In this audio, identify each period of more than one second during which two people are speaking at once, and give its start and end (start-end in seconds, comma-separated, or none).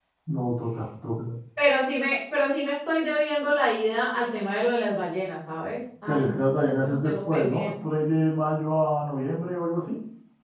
6.1-7.7